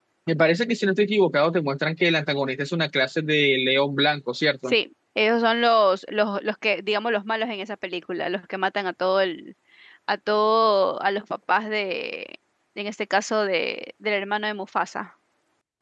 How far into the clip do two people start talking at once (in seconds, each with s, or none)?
none